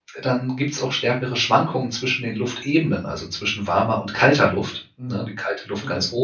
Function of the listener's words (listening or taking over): taking over